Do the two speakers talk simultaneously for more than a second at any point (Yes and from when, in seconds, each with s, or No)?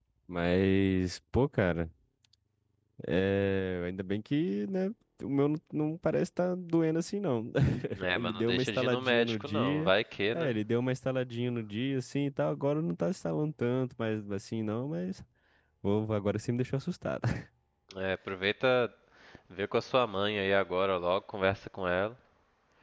Yes, from 8.2 s